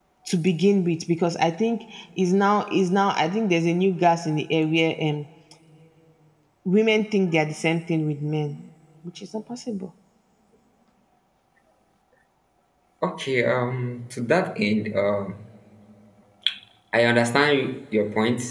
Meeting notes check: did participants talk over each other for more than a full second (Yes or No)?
No